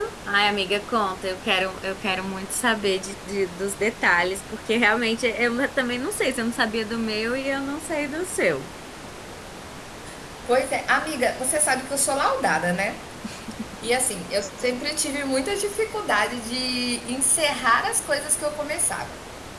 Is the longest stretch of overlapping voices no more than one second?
Yes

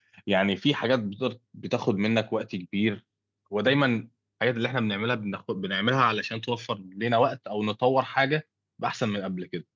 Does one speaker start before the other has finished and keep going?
No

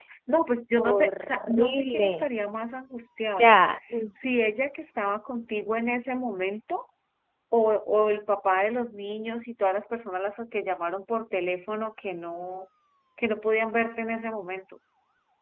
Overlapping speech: Yes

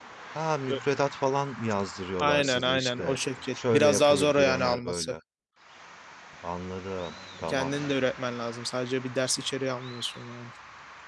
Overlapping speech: Yes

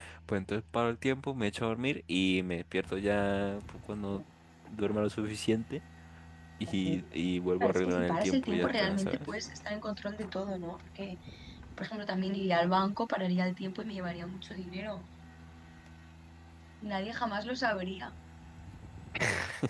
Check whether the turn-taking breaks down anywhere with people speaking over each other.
Yes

